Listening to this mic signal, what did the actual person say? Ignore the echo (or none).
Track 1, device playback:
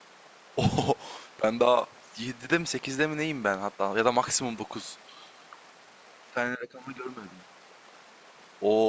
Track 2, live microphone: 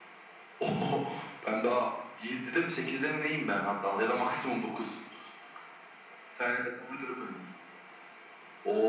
none